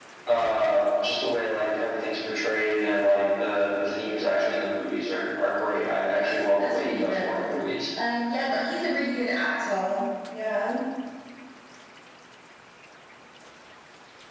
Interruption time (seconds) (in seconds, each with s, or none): 6.2 s